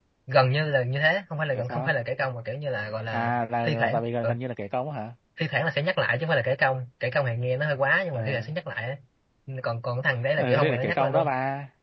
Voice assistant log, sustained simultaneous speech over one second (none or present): present